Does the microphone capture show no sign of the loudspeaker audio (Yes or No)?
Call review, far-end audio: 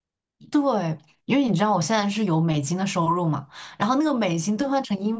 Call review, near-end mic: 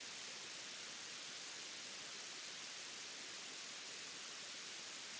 Yes